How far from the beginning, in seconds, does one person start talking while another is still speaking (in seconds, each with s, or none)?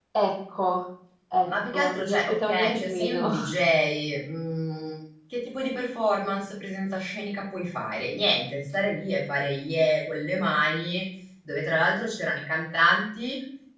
1.5 s